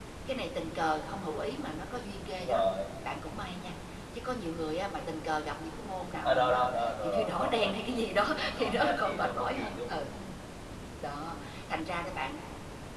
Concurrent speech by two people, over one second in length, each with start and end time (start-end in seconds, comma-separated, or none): 6.2-7.8, 8.6-10.1